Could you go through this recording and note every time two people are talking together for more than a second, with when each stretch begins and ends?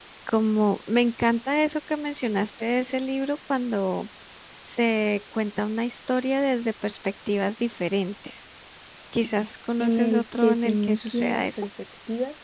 9.8-11.6

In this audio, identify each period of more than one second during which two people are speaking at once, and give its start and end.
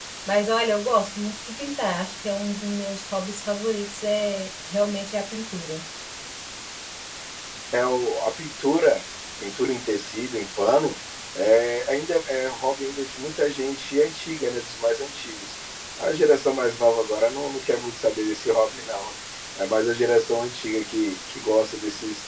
none

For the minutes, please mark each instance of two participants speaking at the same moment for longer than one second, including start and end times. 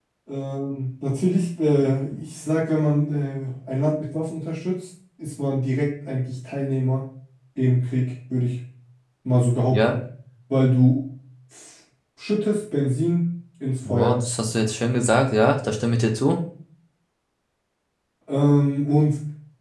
none

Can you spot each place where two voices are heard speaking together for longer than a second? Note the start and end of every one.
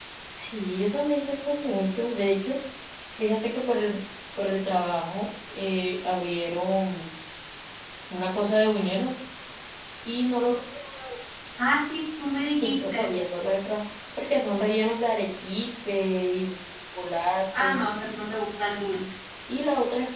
none

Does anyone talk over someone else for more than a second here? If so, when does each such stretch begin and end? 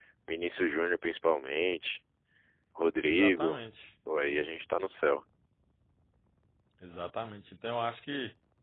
none

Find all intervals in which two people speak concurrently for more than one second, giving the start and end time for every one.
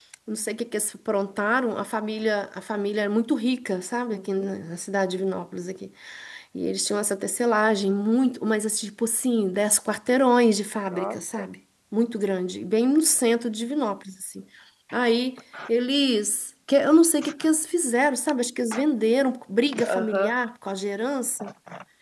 none

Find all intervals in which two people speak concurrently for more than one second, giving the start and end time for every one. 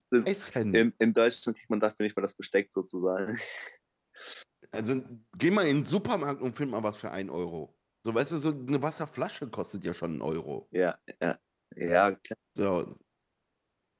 none

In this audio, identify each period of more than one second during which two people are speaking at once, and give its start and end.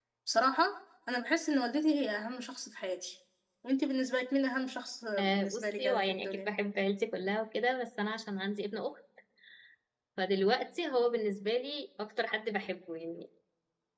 5.2-6.5

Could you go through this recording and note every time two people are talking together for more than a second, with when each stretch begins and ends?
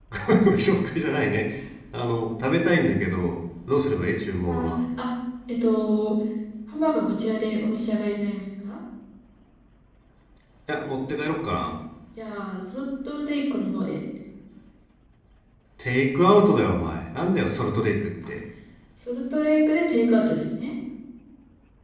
none

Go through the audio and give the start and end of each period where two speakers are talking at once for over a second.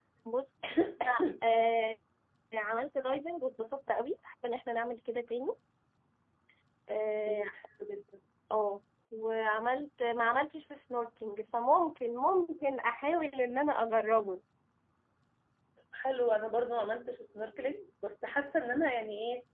none

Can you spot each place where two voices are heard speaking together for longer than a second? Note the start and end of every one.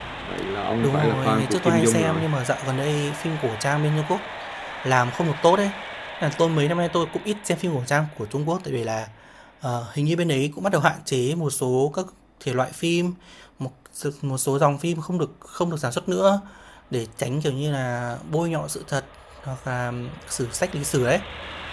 0.8-2.2

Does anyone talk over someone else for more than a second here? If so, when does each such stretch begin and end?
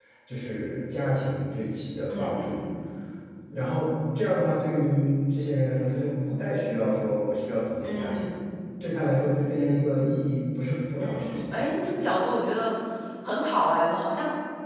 none

